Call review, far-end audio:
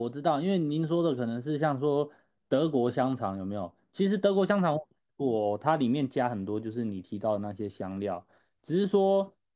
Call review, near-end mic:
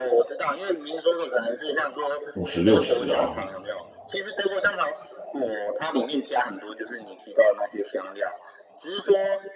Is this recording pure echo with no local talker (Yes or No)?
No